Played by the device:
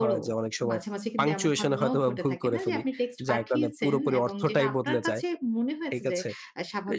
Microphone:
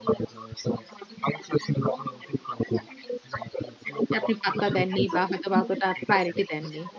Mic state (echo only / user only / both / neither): both